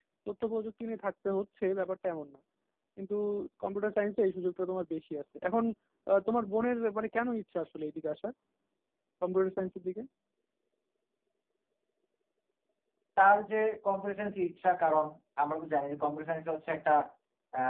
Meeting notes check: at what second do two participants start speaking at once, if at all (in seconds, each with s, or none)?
none